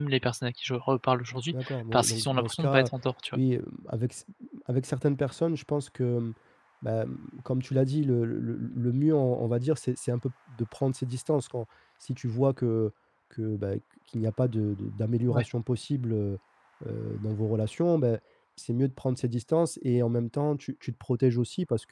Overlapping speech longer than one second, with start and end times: 1.5-2.9

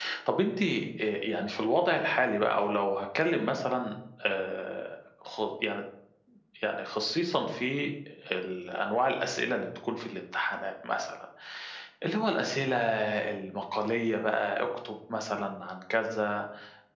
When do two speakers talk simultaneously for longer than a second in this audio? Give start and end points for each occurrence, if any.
none

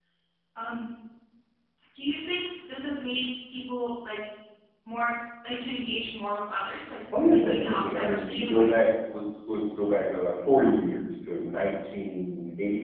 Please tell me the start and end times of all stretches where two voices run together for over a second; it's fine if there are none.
7.2-8.7

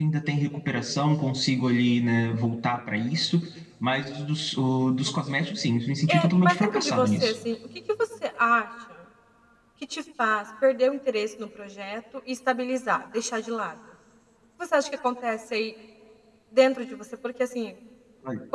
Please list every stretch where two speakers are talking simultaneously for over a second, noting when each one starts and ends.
6.1-7.3

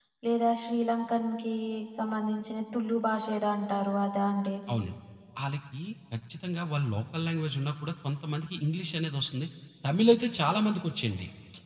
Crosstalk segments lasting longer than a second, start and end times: none

